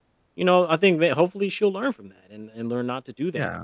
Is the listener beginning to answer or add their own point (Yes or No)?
No